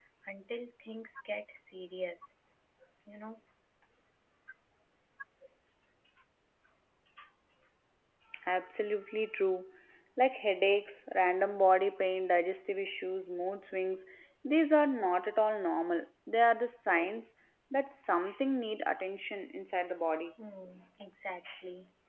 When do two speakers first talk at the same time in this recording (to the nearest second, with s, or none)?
none